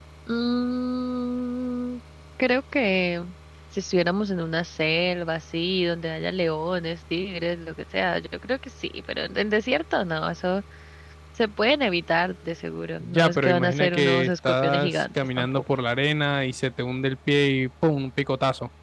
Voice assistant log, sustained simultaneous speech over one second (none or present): present